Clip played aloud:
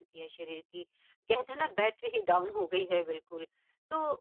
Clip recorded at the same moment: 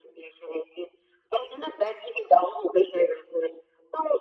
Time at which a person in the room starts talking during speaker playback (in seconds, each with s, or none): none